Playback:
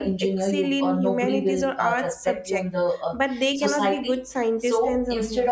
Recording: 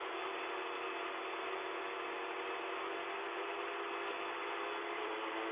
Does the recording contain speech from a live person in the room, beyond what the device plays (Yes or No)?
No